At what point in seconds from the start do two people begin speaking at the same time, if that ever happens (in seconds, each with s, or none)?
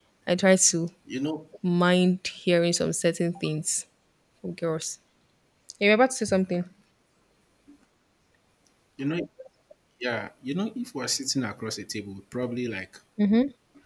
none